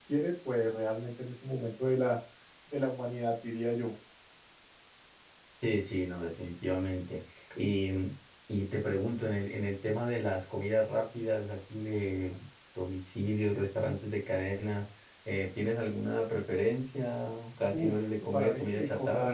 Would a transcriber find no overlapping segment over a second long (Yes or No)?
No